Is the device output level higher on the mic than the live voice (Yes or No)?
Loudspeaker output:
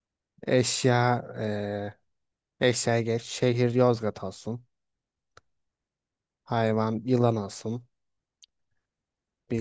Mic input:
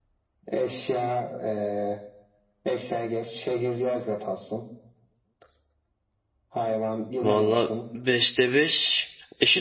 No